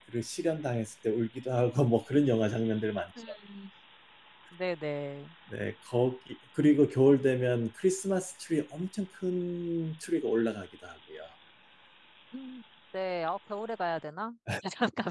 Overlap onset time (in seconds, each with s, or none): none